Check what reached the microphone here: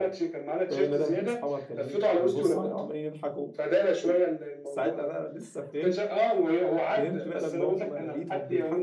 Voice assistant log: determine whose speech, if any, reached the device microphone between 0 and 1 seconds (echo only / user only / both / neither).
both